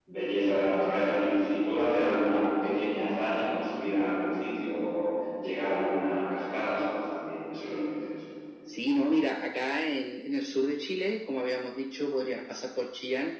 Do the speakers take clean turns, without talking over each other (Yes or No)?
Yes